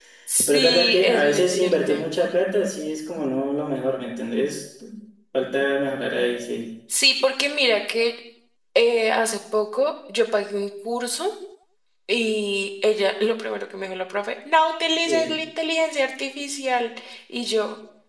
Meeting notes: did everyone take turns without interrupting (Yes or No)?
No